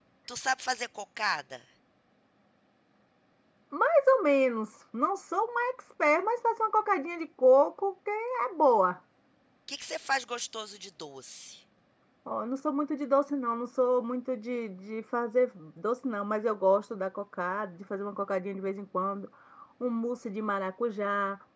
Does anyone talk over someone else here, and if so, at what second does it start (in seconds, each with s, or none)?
none